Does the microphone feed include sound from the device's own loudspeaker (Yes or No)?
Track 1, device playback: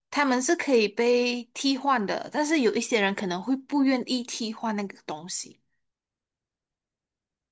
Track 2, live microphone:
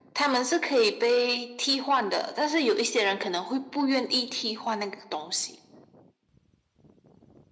Yes